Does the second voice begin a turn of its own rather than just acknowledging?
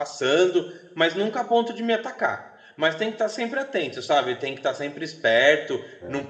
No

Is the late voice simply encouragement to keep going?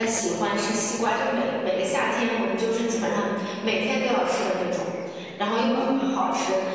Yes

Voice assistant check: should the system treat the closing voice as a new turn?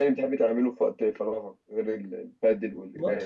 Yes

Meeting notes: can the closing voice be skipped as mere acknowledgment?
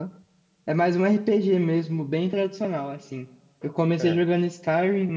Yes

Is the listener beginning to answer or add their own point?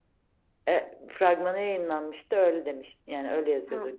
Yes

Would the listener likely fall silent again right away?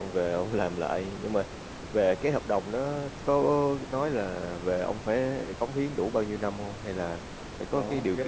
No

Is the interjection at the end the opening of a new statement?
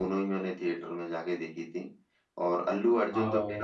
No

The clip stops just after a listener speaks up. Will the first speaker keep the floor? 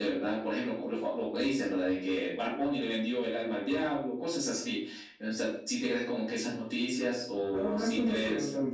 No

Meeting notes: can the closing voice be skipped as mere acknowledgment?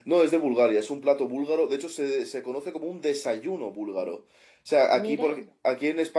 Yes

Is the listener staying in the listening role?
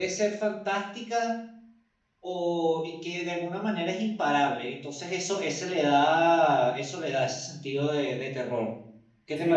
No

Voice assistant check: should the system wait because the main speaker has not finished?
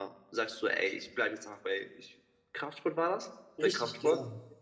No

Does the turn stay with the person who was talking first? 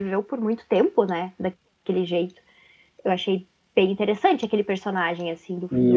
No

